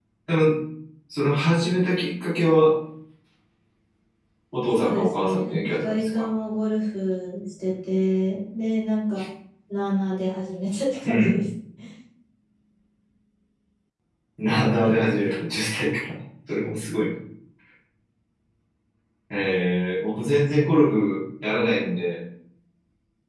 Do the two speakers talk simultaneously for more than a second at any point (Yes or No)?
Yes